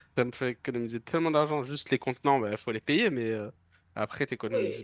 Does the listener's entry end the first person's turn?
Yes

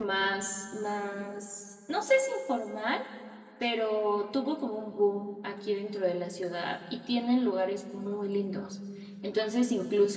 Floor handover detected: No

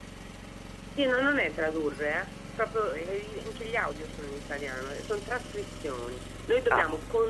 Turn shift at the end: No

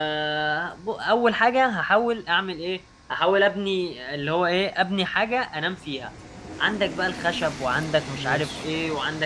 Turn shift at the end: No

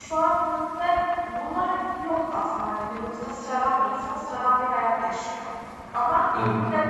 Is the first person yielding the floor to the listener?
No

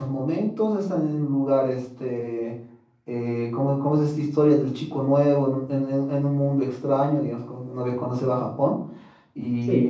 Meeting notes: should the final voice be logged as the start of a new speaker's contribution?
No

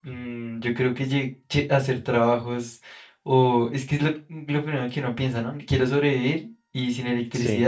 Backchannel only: Yes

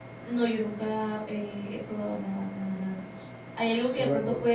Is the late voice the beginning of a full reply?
No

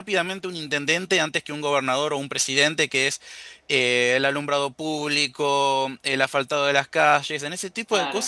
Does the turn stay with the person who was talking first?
Yes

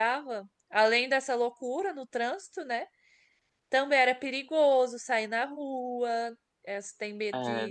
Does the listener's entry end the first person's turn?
No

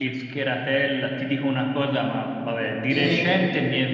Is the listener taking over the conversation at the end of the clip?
No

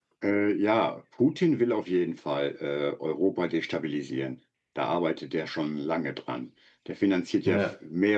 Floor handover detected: No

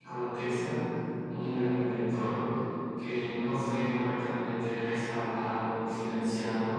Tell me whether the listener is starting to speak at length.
No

